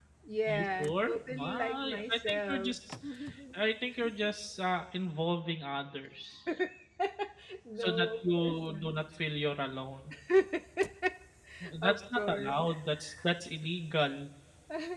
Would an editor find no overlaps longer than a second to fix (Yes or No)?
No